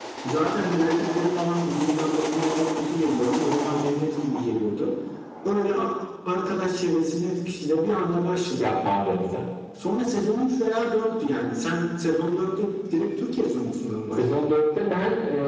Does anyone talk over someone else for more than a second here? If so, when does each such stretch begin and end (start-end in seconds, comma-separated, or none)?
none